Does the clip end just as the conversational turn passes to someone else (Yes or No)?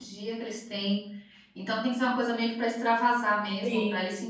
No